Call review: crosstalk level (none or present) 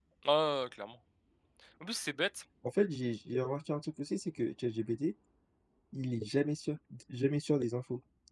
none